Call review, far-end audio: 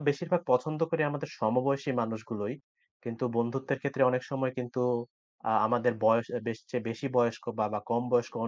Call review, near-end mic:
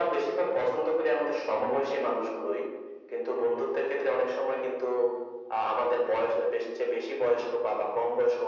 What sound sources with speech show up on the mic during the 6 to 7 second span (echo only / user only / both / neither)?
echo only